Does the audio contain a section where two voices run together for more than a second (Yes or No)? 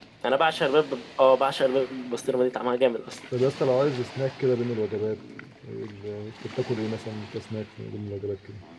No